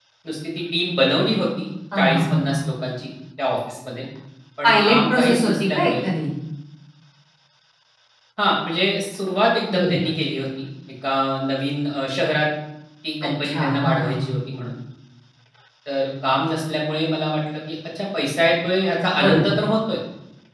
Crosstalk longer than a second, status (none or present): present